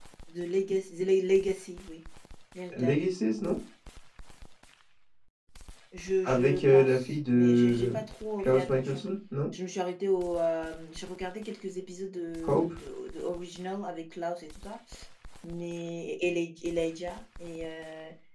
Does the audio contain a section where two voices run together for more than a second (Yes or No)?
Yes